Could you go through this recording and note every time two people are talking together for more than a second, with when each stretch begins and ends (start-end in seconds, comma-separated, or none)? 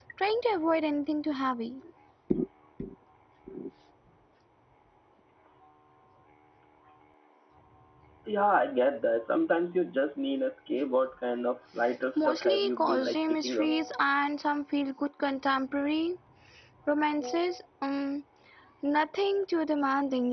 12.2-13.7